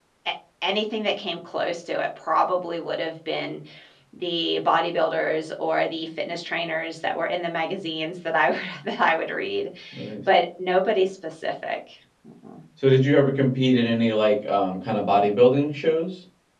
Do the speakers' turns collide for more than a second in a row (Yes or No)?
No